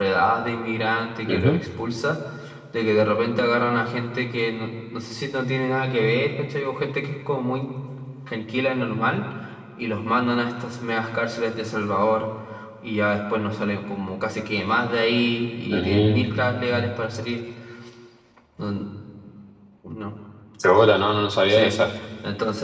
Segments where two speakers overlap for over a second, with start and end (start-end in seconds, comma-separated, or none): 15.7-16.9